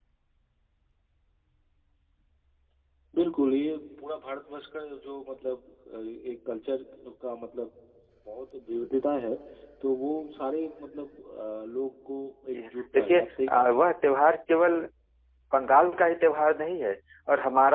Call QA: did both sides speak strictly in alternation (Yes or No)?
No